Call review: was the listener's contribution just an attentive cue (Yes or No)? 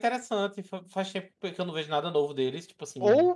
No